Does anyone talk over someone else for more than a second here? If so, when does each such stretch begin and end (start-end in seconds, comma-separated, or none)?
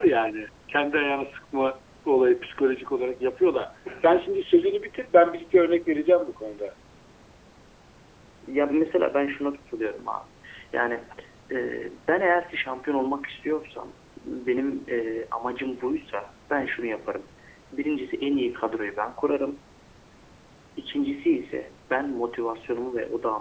none